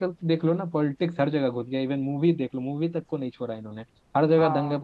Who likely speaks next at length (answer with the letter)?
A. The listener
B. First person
B